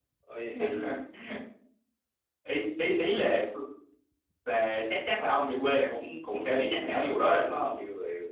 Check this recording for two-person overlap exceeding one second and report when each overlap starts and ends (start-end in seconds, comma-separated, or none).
6.3-7.8